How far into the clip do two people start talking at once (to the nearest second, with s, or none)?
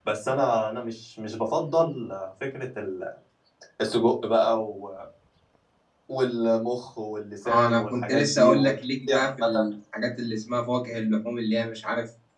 7 s